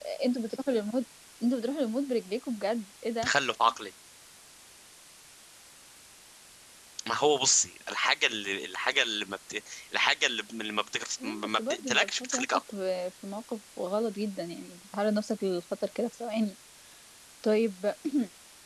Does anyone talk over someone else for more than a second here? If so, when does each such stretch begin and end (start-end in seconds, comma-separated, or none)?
11.2-12.6